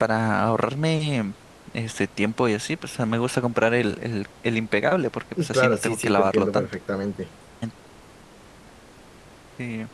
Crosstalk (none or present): present